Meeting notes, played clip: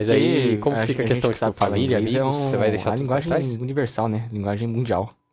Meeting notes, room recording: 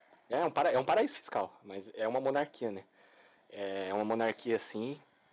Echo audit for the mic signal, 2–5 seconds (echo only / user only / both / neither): user only